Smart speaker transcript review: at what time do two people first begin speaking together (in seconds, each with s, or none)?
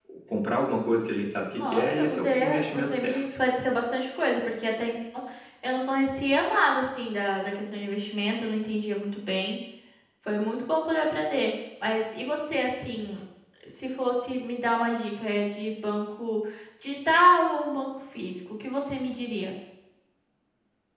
1.5 s